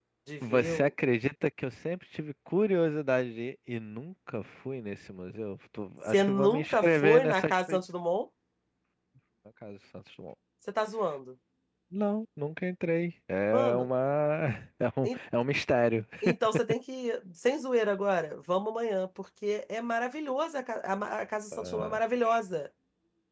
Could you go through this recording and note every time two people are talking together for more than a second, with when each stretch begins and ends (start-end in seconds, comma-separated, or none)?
6.1-7.8